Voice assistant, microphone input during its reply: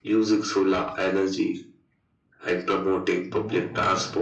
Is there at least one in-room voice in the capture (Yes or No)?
Yes